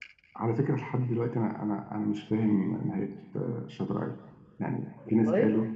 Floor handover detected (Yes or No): No